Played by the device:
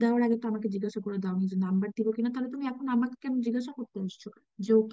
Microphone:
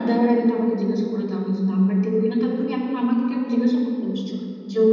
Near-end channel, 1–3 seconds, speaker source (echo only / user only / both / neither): echo only